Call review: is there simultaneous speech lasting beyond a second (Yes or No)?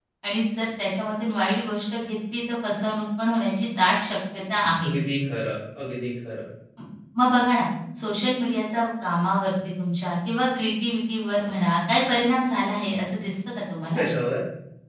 No